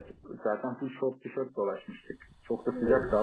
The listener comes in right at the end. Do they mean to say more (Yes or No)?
No